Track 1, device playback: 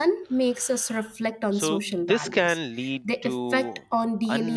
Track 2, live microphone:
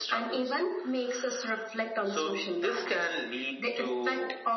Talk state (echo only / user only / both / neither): echo only